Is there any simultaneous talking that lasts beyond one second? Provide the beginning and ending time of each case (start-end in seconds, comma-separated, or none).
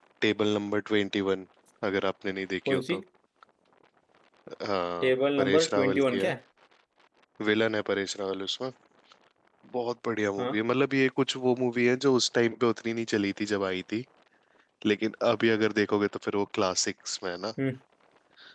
5.0-6.3